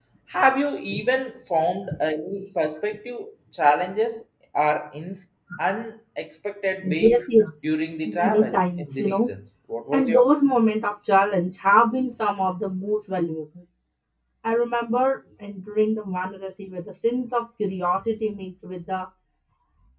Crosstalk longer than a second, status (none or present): present